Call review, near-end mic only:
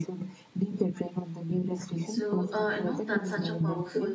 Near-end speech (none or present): present